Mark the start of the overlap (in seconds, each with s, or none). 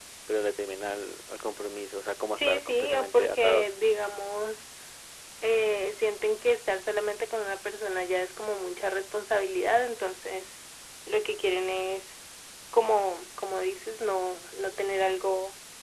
2.4 s